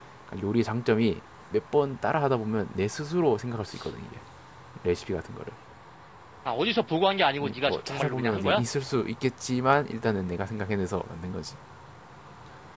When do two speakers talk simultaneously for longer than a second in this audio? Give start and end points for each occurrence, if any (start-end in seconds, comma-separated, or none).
7.4-8.6